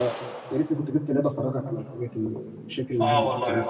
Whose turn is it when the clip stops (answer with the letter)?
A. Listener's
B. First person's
A